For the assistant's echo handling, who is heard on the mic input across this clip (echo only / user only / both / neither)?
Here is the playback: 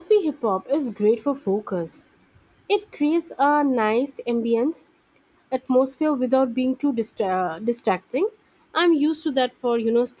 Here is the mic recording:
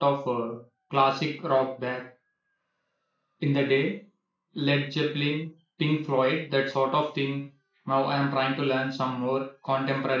user only